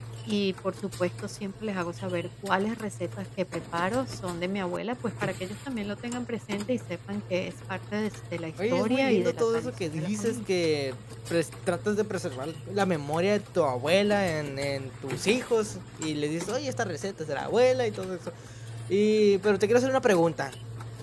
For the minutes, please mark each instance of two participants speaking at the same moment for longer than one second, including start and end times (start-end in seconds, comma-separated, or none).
8.7-10.4